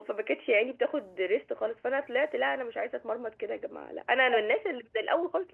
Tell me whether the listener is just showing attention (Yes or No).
Yes